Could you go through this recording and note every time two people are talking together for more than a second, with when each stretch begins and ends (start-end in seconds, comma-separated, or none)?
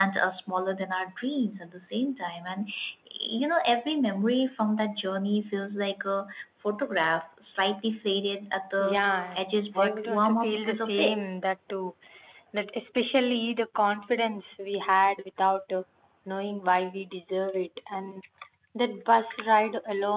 9.8-11.2